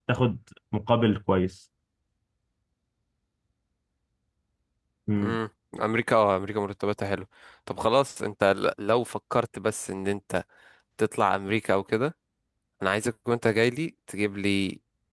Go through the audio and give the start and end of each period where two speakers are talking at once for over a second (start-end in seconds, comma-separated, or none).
none